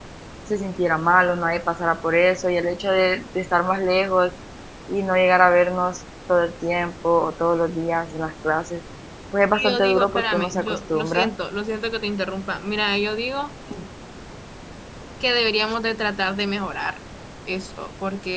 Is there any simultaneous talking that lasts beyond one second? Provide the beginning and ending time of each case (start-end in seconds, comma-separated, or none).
9.5-11.3